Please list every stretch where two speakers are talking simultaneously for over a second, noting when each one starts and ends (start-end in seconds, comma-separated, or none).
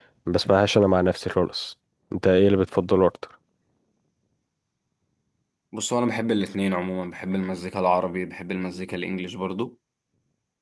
none